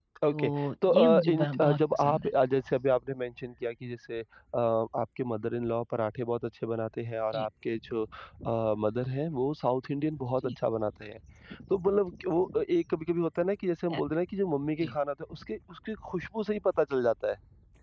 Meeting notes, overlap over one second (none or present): present